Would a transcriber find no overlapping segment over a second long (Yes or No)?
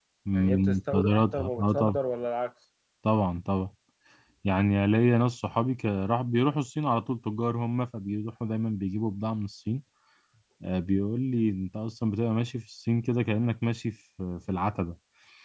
No